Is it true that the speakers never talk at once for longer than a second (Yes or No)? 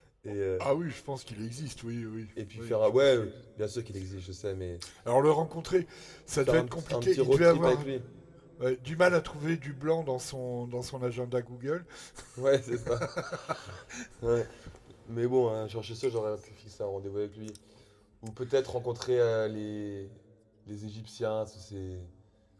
No